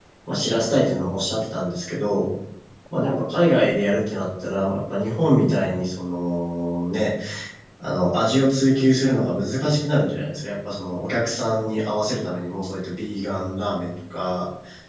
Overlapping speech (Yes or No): No